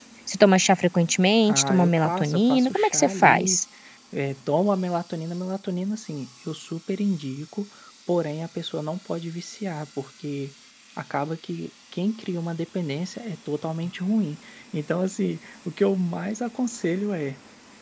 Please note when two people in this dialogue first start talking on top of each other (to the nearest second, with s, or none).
1 s